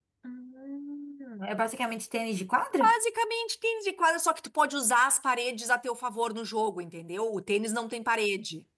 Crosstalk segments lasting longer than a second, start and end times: none

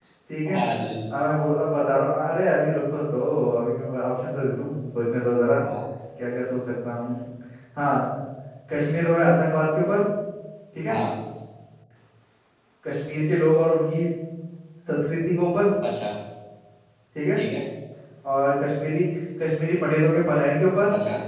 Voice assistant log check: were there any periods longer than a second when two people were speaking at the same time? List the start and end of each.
none

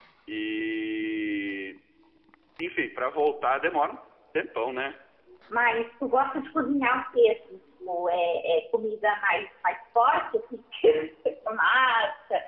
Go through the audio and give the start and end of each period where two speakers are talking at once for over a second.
none

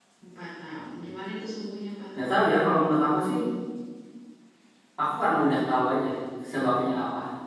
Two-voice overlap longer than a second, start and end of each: none

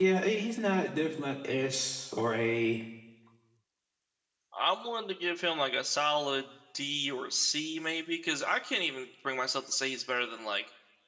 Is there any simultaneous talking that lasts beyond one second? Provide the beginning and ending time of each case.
none

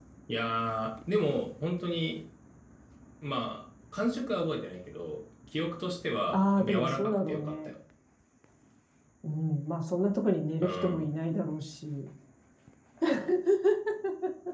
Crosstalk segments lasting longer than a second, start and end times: 6.3-7.7

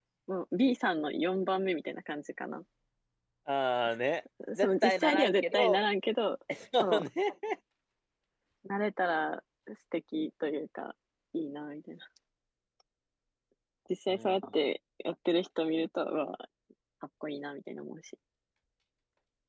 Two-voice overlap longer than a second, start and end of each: 4.6-5.8

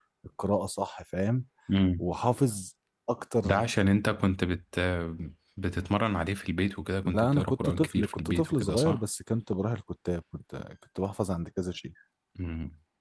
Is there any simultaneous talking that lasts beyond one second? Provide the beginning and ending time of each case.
7.1-9.0

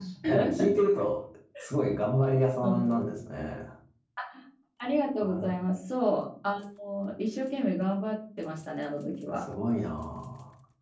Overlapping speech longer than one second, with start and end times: none

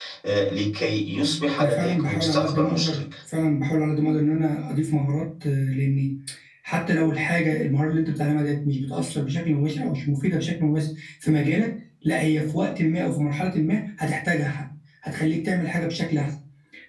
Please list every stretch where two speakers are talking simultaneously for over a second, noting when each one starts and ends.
1.6-3.0

